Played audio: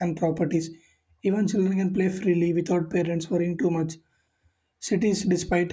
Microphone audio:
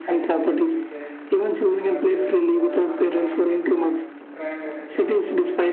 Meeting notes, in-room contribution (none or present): present